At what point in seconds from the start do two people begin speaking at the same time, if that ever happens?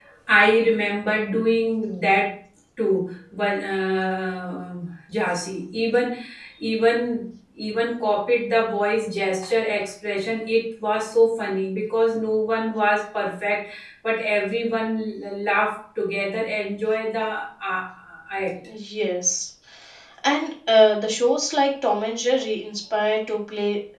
none

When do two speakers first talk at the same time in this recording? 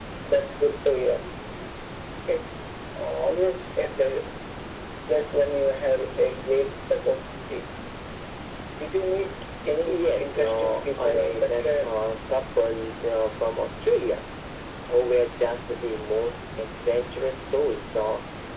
9.9 s

